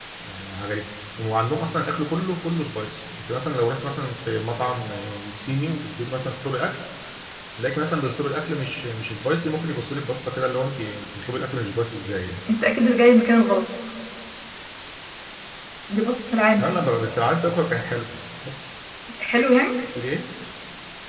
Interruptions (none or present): none